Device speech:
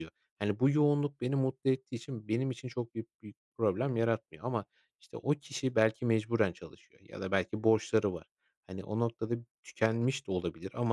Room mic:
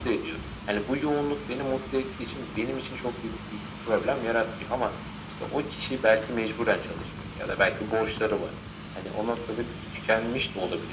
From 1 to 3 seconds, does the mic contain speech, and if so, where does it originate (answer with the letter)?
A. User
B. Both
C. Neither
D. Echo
D